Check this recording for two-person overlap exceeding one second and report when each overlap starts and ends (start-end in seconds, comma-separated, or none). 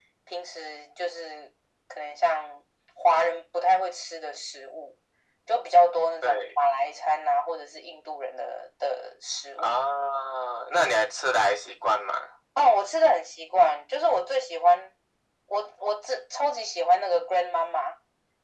none